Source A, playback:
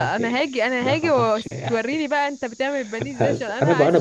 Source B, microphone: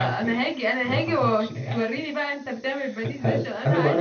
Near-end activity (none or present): none